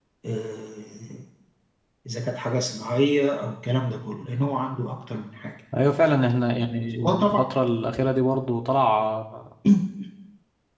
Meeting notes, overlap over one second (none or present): none